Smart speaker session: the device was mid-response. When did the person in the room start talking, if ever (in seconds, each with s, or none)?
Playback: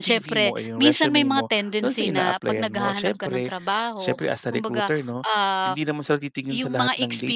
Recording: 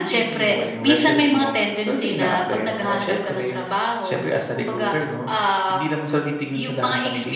none